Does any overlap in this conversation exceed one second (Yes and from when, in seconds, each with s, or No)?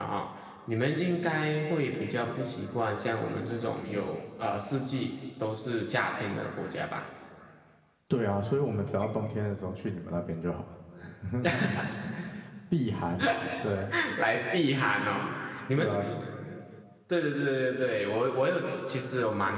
No